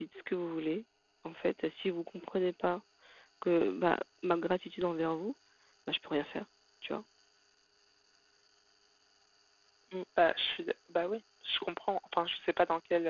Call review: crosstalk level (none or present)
none